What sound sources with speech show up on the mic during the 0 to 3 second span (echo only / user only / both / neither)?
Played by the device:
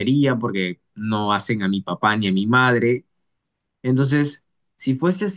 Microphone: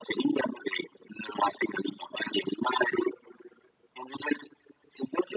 echo only